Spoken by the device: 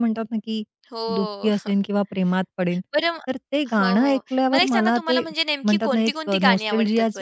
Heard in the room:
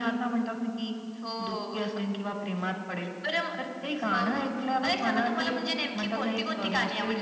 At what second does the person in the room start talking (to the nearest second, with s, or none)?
none